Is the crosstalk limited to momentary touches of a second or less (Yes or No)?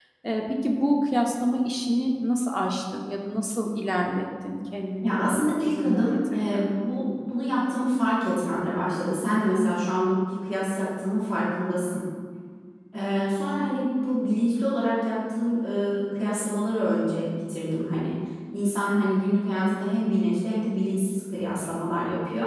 No